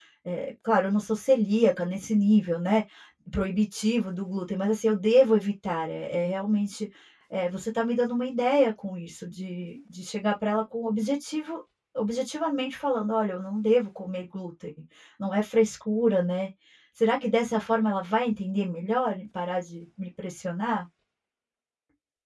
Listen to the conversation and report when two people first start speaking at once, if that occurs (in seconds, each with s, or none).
none